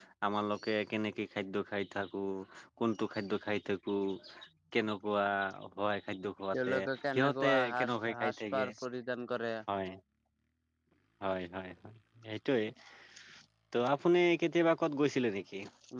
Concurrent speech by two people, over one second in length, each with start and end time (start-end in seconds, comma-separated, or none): 7.1-8.6